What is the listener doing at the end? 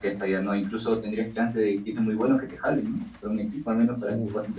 taking over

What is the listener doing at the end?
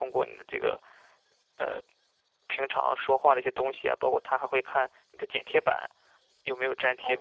taking over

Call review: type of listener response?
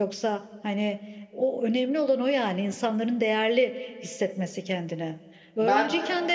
listening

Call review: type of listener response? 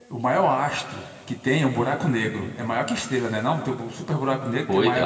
taking over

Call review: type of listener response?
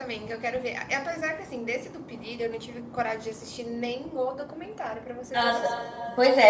taking over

